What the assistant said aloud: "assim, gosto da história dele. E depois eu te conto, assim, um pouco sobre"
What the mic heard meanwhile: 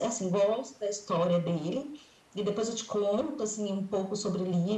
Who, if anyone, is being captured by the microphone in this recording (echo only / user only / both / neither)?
echo only